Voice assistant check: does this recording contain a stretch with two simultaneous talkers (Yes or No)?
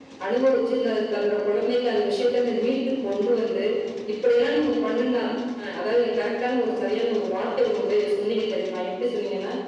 No